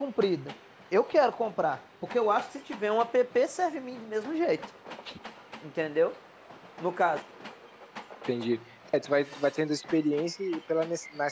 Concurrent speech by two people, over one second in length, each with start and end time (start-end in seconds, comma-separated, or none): none